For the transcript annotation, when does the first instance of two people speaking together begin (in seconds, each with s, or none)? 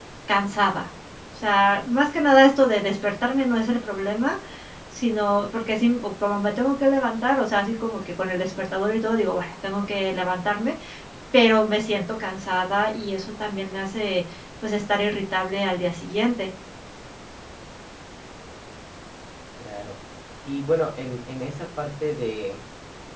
none